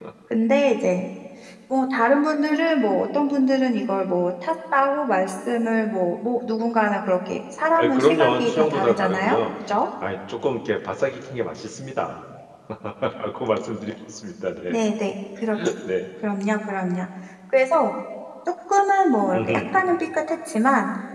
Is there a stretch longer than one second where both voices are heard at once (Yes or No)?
Yes